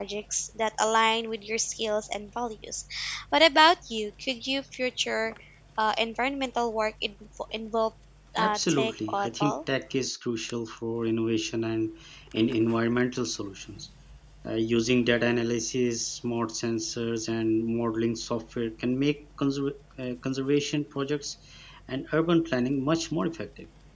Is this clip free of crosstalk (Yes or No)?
No